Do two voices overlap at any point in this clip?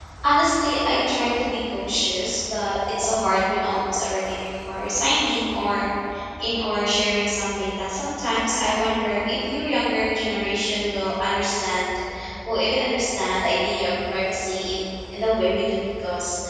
No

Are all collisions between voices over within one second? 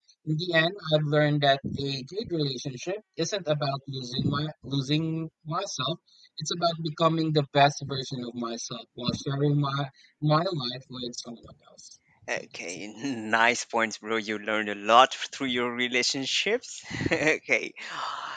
Yes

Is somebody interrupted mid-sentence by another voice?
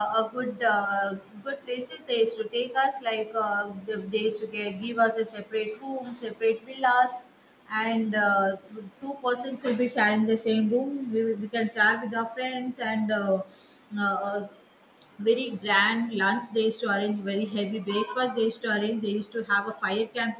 No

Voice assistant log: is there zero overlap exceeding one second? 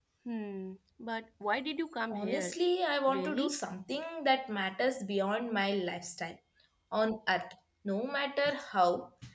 Yes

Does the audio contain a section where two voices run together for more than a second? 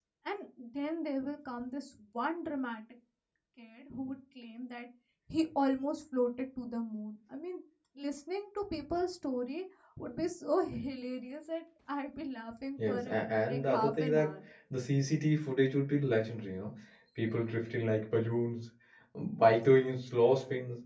Yes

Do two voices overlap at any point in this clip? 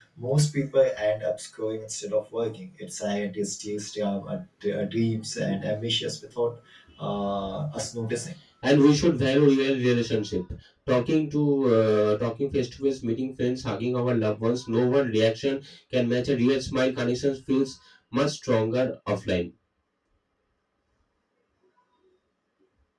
No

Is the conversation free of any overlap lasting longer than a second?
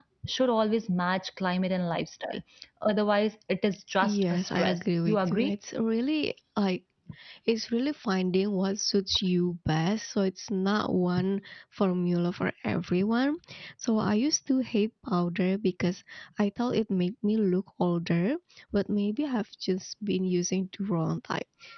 No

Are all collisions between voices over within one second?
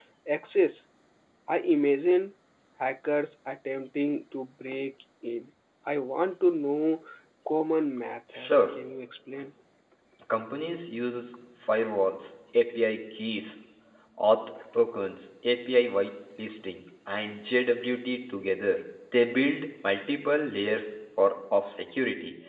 Yes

